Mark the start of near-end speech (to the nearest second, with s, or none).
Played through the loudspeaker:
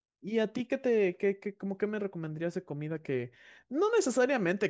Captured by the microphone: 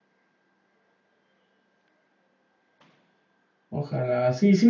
4 s